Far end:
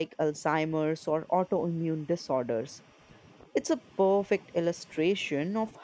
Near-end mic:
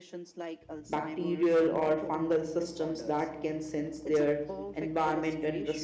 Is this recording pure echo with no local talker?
No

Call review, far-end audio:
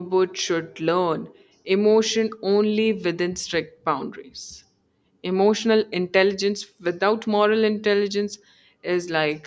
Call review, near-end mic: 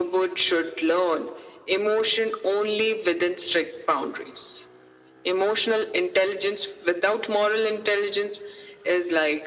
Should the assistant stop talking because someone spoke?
No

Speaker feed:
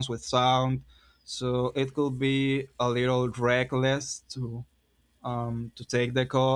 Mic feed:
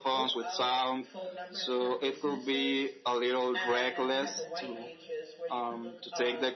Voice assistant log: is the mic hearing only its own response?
No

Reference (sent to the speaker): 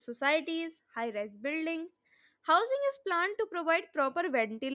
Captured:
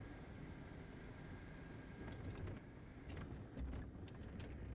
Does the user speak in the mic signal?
No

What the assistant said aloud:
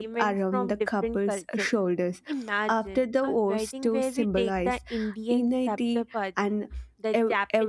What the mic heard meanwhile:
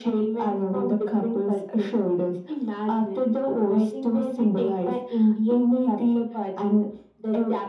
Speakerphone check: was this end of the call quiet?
Yes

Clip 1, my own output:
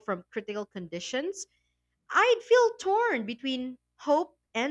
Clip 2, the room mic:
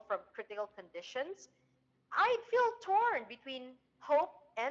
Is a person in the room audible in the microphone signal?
No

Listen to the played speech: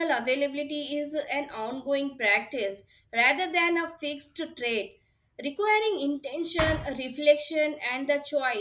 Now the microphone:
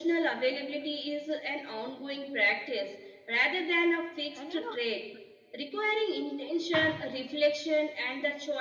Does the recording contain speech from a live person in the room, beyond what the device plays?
Yes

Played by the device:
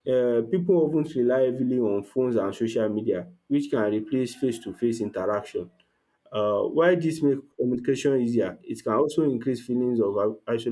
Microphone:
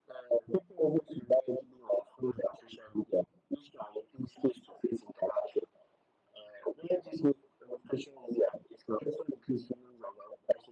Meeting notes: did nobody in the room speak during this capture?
Yes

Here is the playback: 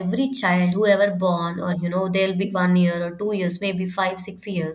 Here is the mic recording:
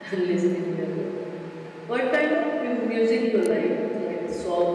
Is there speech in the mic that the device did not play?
Yes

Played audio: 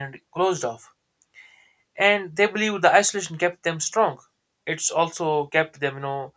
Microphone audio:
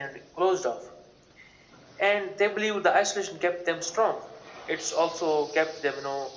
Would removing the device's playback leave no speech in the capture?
Yes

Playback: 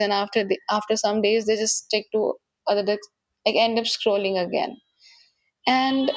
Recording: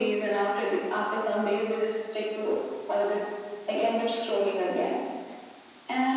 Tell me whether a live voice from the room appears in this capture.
No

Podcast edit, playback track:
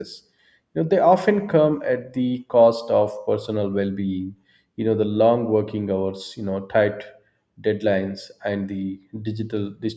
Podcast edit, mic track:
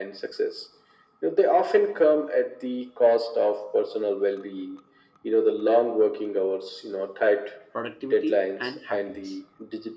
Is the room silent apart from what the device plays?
No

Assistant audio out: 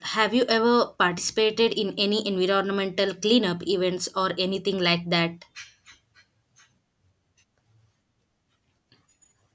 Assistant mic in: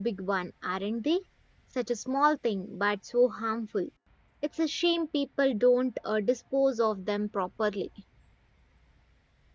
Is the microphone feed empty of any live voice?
No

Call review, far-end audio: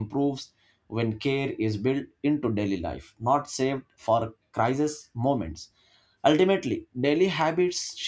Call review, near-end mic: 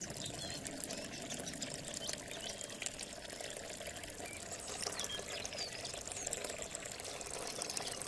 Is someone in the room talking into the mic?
No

